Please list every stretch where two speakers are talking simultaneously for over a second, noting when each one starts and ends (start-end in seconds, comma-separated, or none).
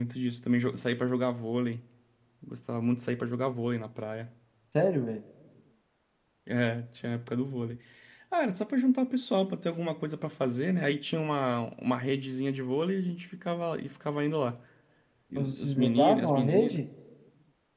15.3-16.8